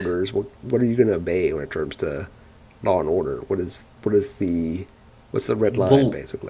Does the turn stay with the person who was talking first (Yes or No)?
No